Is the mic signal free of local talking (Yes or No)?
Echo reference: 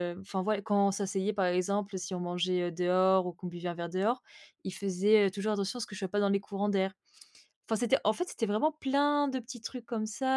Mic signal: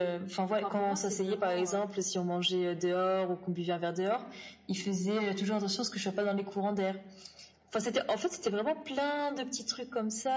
No